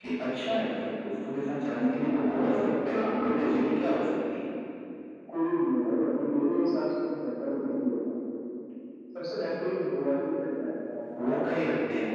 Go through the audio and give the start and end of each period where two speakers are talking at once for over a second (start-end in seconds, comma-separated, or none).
1.9-3.6